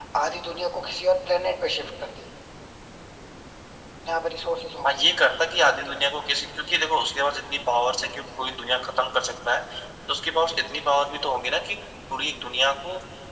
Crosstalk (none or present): none